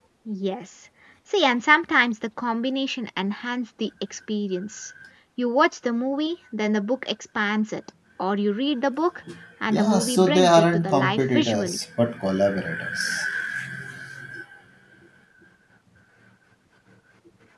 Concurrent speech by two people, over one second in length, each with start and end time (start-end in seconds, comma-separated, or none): 9.7-11.8